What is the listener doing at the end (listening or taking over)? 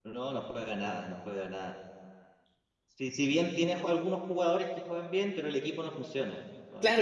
taking over